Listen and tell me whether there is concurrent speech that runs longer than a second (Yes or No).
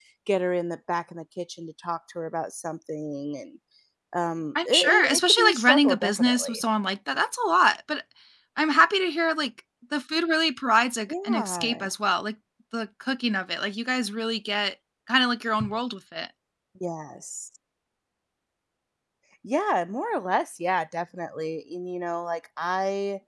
Yes